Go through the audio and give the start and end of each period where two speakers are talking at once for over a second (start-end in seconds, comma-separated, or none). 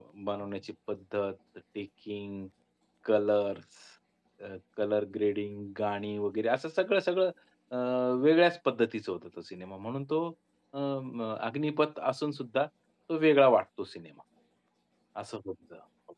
none